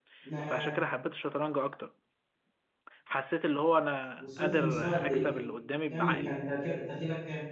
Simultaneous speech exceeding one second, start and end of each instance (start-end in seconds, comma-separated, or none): 4.2-5.5